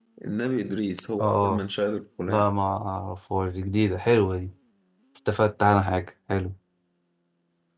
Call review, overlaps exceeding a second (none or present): none